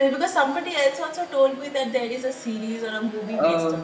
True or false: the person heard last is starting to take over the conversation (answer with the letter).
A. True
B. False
A